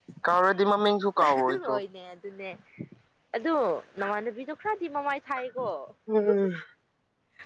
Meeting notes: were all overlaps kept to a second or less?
Yes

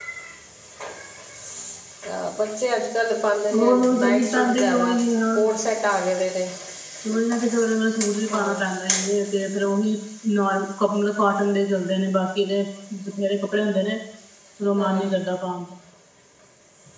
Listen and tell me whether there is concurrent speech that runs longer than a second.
Yes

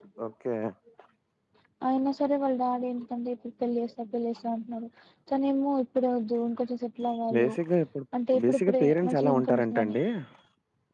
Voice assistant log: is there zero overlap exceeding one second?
No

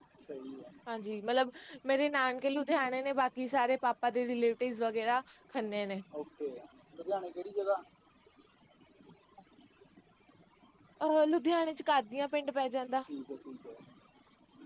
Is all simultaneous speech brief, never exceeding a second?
Yes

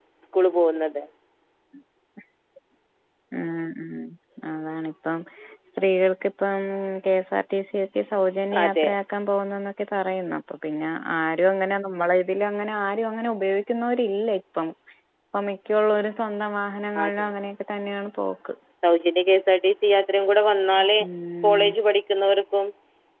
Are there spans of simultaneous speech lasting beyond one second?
No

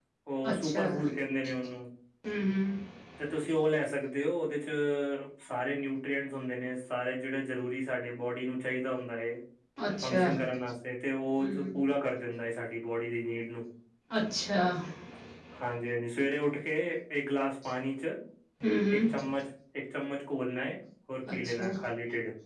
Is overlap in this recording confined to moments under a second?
Yes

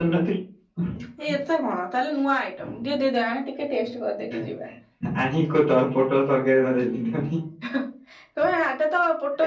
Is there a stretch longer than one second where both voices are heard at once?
No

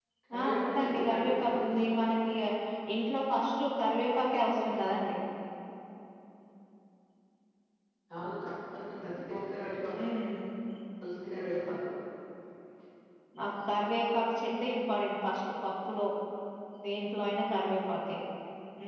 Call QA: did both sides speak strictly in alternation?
No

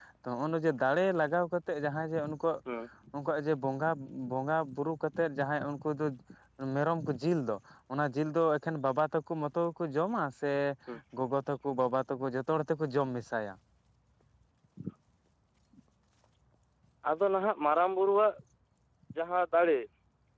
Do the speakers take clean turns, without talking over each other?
Yes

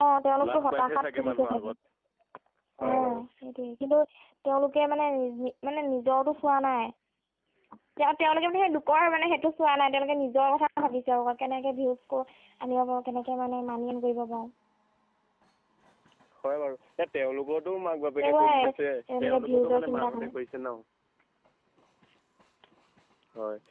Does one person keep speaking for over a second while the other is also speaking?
Yes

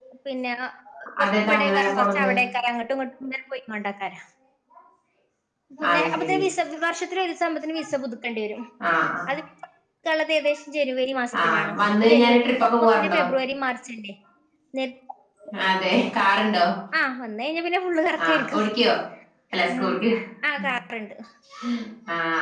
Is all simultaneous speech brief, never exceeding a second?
No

